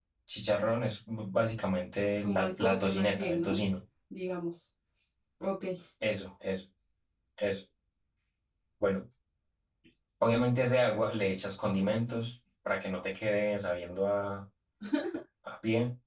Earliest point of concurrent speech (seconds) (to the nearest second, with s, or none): 2 s